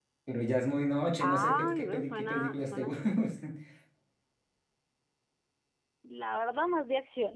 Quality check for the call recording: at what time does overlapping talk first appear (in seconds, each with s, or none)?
1.2 s